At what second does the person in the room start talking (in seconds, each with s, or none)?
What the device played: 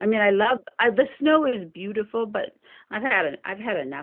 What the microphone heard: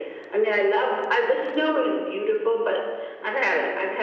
none